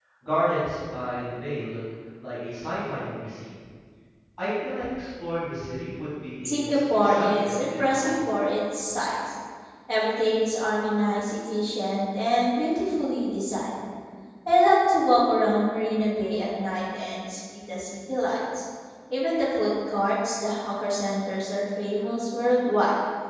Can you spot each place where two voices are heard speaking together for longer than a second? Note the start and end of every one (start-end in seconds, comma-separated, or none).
6.5-8.2